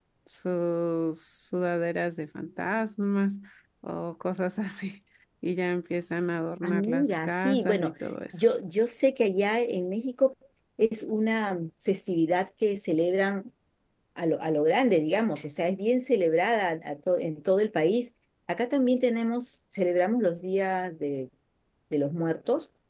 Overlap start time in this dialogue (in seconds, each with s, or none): 6.6 s